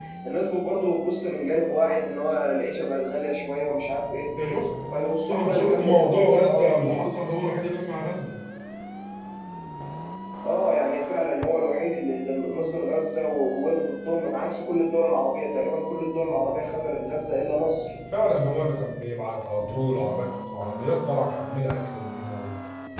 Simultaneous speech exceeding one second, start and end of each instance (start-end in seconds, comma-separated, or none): 5.3-7.1